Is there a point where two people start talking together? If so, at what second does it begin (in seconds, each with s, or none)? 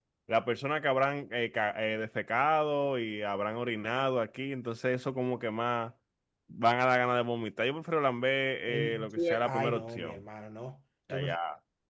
8.7 s